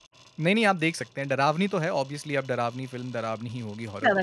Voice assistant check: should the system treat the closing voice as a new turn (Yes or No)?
No